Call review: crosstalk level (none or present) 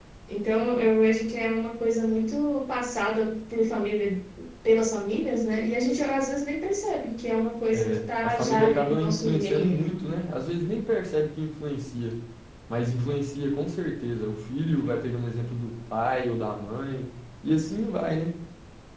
present